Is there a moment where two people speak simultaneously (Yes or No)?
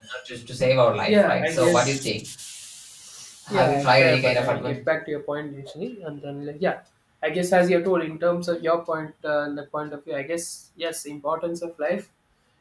Yes